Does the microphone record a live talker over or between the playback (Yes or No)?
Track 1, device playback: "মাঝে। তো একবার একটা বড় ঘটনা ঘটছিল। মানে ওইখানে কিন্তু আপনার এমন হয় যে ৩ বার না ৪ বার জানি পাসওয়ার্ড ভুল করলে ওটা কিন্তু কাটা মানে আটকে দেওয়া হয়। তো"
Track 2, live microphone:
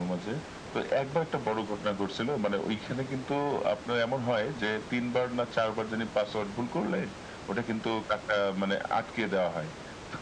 No